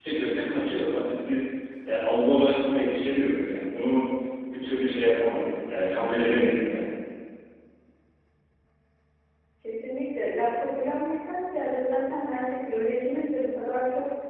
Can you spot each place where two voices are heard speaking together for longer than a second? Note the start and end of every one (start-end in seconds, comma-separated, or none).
none